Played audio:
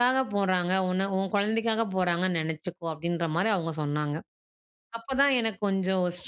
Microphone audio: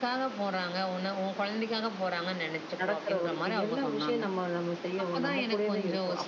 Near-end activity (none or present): present